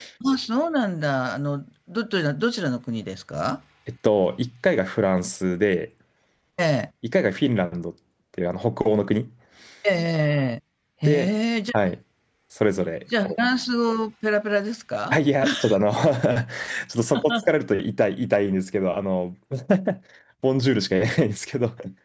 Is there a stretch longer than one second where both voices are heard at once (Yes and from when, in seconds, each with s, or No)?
No